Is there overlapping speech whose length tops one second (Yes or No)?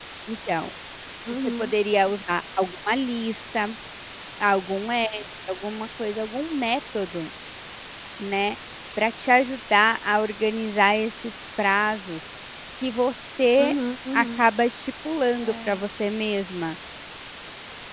No